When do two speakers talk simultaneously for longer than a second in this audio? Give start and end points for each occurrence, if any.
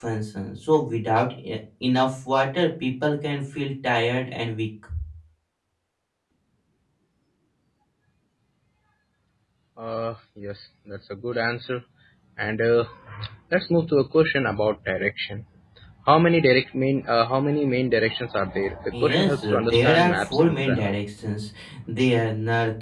18.9-20.9

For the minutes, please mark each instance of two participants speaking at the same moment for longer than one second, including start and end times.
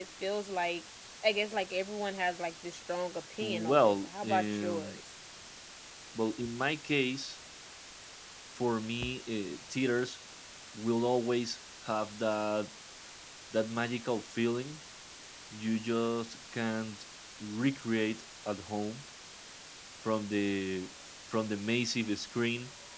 3.4-5.0

